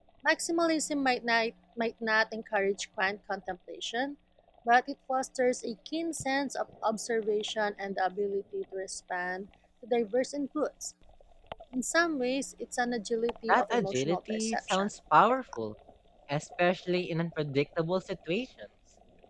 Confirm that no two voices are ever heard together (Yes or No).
No